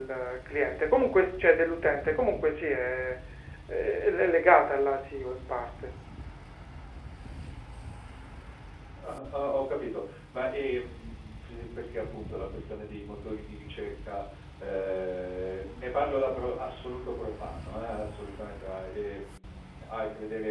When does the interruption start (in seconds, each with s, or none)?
none